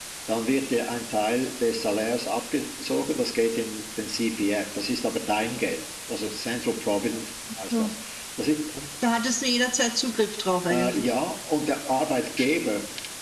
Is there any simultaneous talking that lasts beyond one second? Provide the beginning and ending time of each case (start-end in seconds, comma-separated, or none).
none